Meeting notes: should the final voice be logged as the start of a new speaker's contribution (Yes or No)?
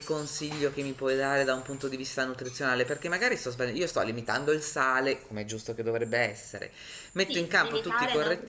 Yes